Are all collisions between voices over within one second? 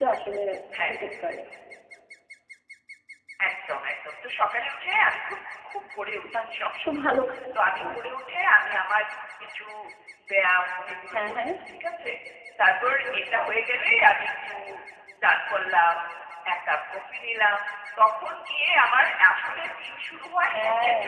Yes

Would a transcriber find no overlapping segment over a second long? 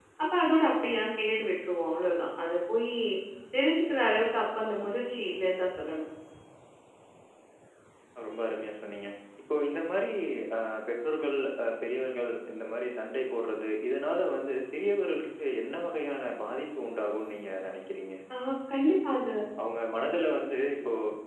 Yes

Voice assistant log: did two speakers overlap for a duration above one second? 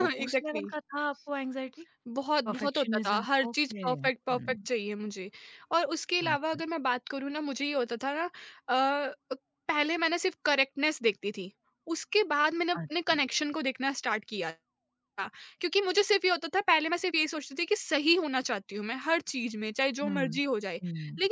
Yes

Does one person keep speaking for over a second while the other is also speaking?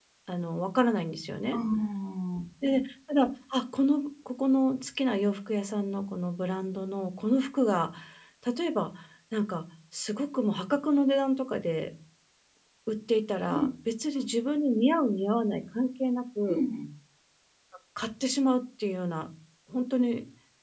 No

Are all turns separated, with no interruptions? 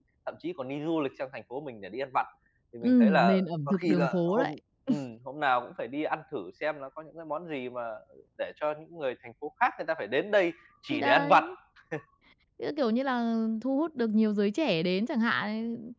No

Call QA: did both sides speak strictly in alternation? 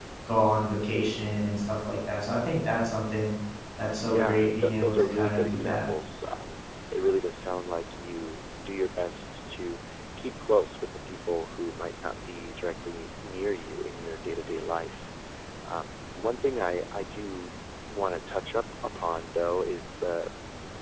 No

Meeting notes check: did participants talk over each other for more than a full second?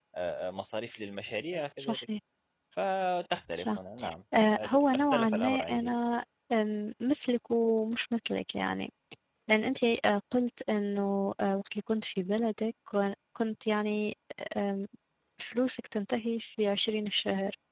Yes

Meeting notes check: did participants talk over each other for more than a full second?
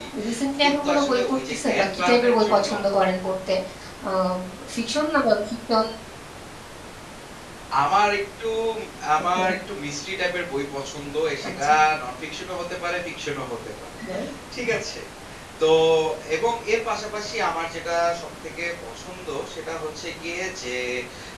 Yes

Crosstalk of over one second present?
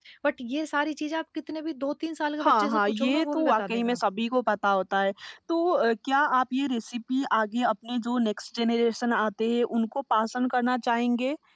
Yes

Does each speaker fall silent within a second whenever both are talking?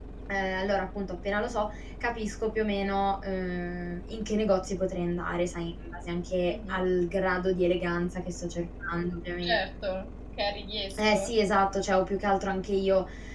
Yes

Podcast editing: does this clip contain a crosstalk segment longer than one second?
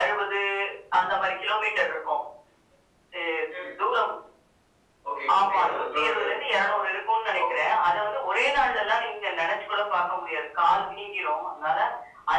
Yes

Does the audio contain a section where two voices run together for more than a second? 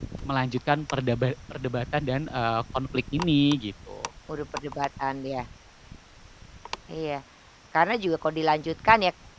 No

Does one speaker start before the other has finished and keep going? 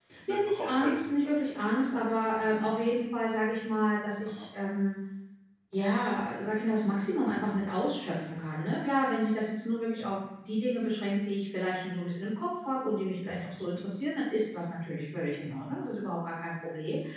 Yes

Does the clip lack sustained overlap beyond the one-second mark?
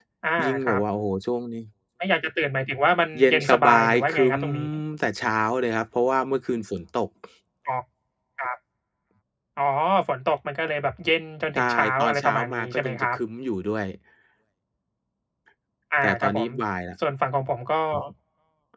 No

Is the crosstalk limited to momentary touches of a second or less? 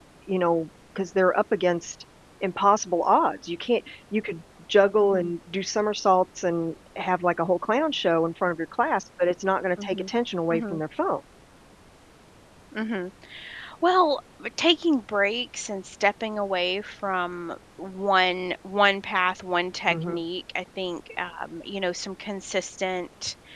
Yes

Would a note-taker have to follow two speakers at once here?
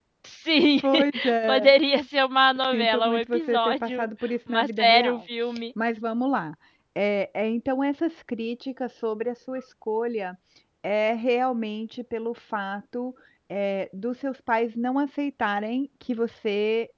Yes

